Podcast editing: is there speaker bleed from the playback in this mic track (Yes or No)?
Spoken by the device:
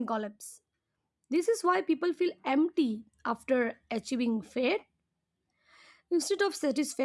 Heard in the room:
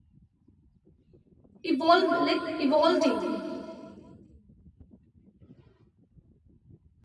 No